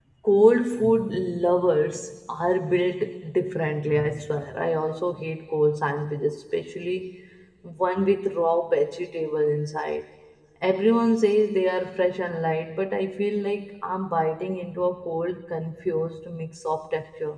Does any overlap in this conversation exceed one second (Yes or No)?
No